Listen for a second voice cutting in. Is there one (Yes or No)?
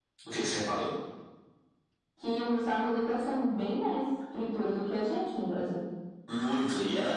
No